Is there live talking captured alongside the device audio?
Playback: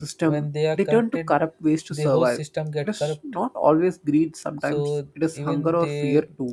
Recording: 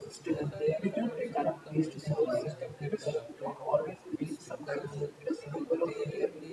Yes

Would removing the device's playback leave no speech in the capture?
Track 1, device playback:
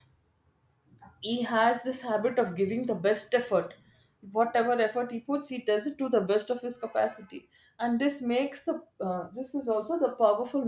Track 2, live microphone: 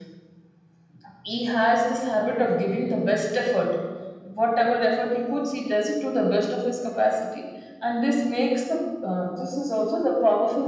Yes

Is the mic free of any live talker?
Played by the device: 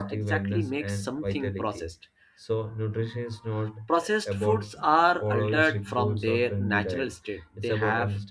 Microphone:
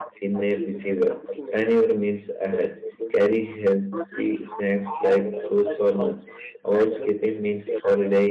No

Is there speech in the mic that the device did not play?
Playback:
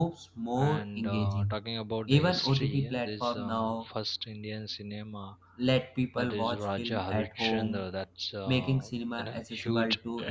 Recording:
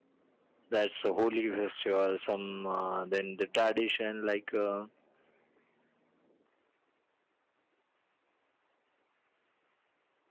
Yes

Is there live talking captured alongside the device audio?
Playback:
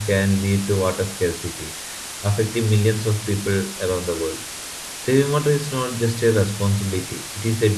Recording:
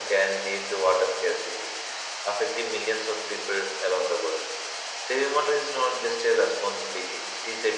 No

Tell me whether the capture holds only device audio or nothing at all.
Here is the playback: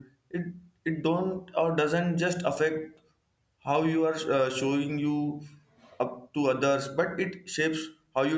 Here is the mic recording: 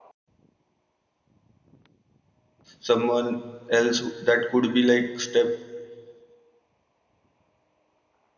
No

